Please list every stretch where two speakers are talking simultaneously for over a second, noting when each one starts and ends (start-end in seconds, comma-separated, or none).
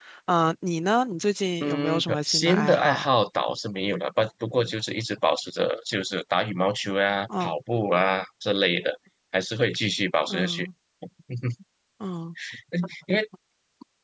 1.6-3.1